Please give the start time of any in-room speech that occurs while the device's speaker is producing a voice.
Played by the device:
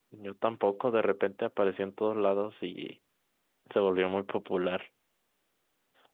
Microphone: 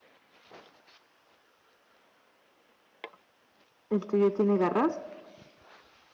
4 s

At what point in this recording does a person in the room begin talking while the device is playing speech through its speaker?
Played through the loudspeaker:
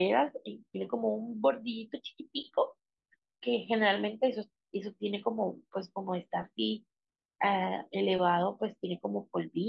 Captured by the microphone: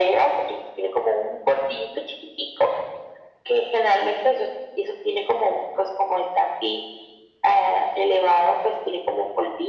none

